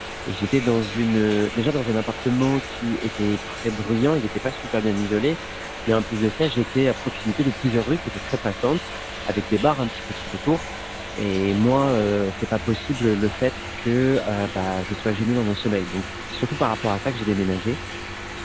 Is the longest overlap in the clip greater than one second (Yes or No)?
No